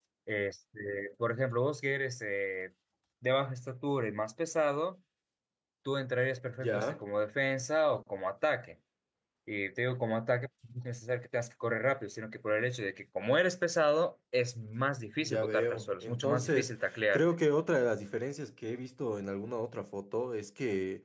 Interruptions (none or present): present